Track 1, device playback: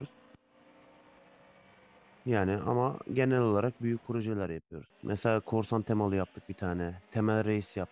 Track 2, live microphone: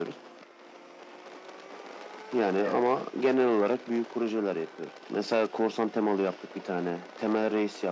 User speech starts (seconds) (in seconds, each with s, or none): 2.5 s